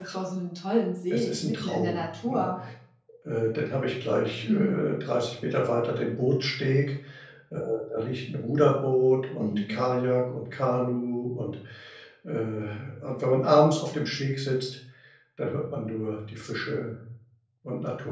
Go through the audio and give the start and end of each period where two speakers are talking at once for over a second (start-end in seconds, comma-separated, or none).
1.1-2.5